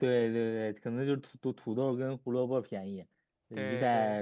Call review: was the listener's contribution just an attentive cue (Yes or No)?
Yes